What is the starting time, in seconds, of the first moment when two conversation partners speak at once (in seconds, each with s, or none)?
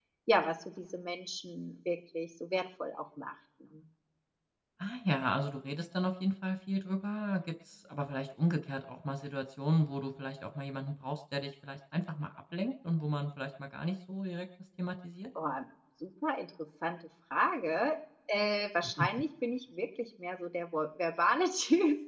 none